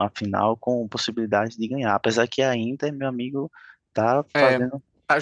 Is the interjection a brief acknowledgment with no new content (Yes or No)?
No